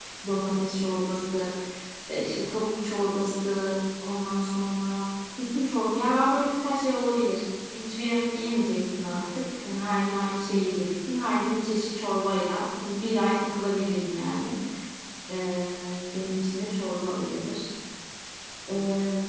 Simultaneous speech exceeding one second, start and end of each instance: none

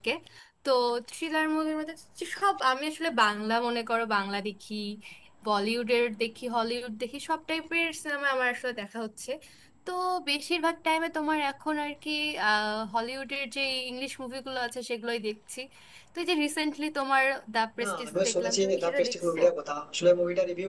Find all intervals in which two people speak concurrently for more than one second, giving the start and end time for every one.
17.8-19.4

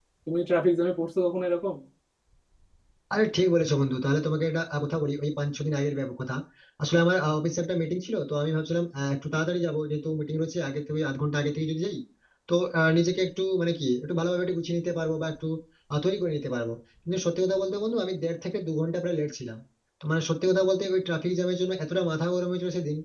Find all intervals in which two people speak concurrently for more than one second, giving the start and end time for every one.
none

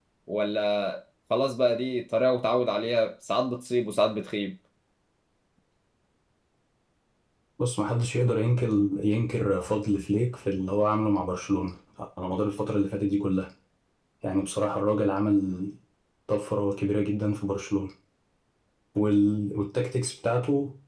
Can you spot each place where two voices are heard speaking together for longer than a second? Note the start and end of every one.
none

